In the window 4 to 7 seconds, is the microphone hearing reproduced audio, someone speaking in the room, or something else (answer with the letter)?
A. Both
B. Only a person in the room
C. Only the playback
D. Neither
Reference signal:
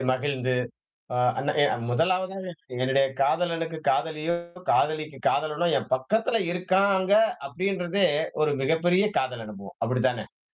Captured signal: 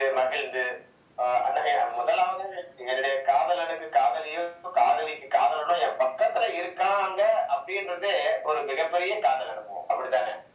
C